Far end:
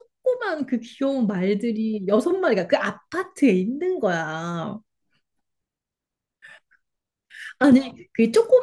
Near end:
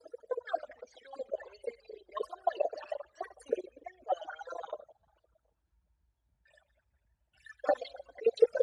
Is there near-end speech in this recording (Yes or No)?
No